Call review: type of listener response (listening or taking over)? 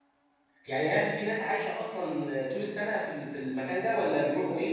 taking over